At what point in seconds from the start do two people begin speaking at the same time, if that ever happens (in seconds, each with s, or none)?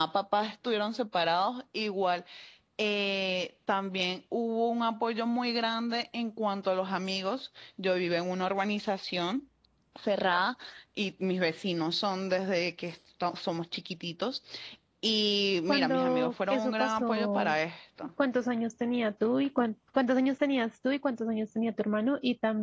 15.7 s